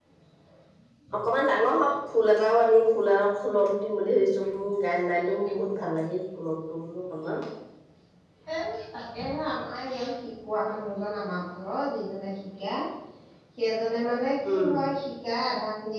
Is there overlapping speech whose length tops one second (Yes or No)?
No